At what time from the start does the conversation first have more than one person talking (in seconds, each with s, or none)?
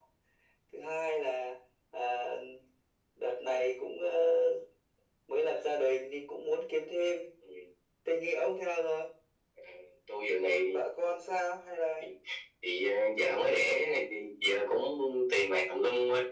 none